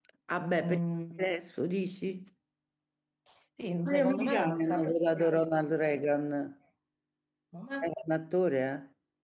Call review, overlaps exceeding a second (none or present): present